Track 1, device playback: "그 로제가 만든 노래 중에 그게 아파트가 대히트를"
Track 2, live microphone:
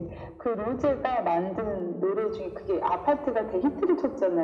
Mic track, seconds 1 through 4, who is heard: echo only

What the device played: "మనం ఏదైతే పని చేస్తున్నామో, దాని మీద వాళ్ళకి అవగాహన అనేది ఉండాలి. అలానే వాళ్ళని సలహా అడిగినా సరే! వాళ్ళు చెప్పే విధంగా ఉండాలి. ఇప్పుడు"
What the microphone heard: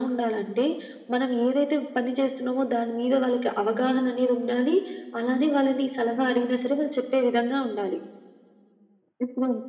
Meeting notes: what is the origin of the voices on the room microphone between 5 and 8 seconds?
echo only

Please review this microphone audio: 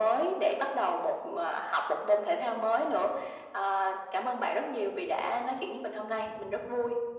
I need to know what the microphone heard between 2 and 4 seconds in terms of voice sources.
echo only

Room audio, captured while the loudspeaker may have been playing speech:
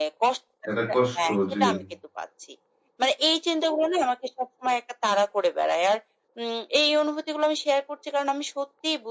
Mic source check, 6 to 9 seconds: echo only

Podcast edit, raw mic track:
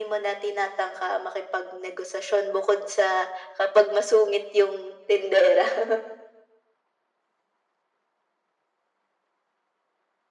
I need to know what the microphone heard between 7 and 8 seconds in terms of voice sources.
neither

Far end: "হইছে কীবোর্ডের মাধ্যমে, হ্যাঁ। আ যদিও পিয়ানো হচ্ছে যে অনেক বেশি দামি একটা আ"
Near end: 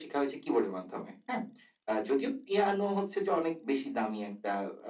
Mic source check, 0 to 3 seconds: echo only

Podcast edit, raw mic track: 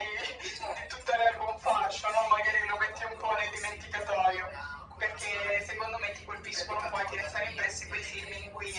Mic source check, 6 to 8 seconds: echo only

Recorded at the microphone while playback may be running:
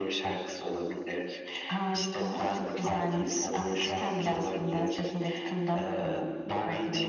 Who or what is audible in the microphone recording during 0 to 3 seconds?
echo only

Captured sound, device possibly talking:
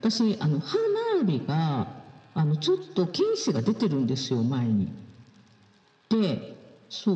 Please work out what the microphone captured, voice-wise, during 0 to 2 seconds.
echo only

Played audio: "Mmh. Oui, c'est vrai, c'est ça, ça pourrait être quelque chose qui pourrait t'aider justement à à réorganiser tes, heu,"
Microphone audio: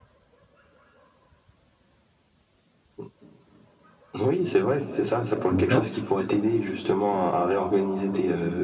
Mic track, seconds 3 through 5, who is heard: echo only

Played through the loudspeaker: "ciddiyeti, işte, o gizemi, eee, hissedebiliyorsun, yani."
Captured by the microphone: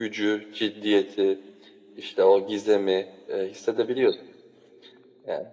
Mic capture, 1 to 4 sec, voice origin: echo only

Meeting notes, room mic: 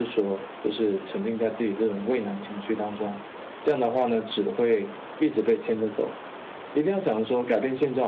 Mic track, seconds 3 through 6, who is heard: echo only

